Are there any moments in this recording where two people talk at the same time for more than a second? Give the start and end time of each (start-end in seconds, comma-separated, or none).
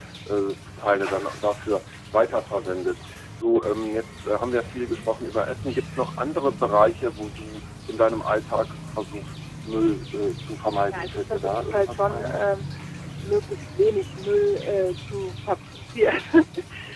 10.9-12.4